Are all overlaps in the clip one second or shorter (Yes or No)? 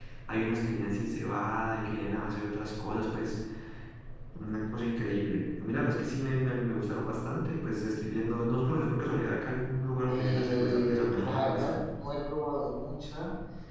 No